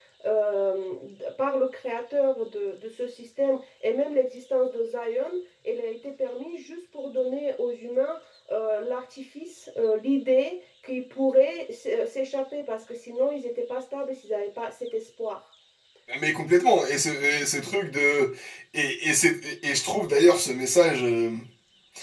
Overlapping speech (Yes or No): No